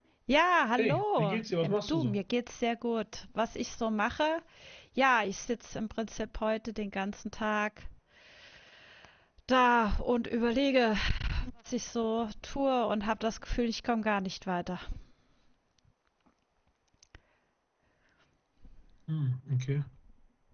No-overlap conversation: No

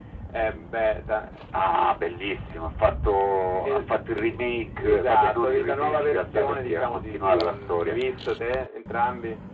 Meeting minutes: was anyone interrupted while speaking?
Yes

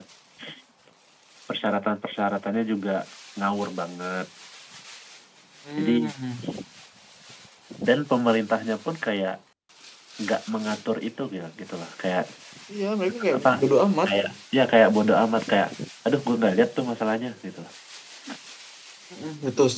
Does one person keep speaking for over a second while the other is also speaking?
No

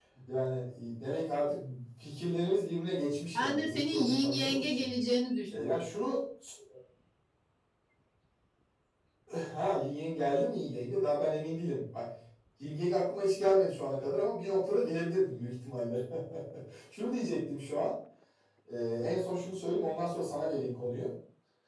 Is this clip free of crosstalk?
No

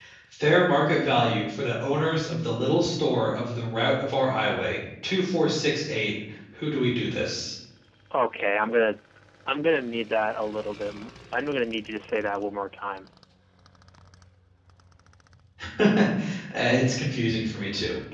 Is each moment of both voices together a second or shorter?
Yes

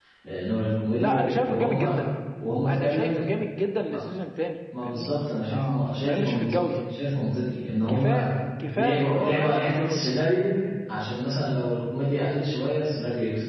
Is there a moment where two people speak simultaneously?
Yes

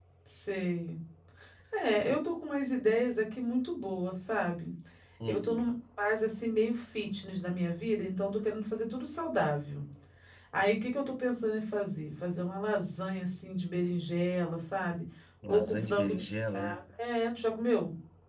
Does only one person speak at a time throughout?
No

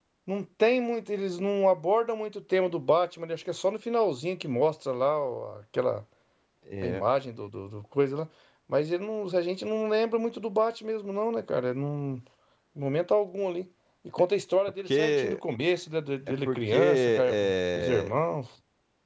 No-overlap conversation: No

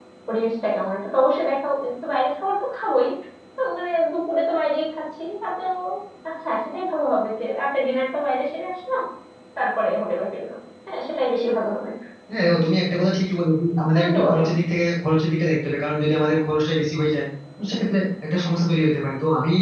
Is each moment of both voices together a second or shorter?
Yes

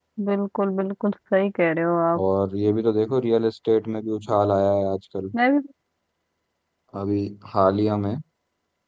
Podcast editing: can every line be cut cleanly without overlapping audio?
Yes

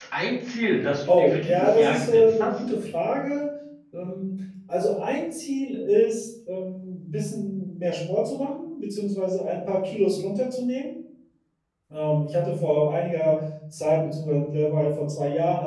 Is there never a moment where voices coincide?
No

